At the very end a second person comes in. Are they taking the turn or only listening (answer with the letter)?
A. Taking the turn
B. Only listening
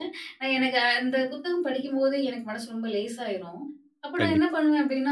B